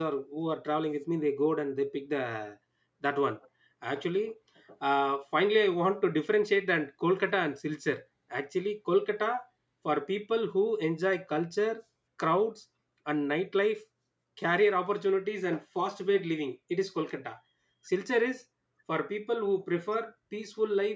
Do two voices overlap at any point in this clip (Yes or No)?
No